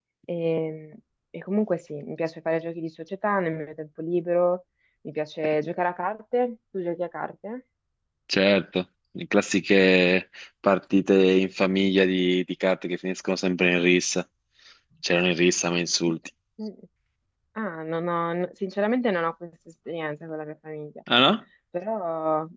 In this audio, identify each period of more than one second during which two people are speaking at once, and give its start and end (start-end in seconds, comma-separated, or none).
none